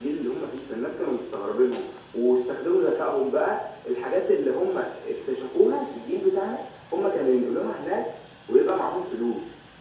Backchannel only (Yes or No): No